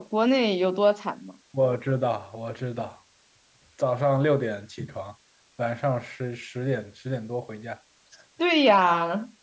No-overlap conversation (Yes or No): Yes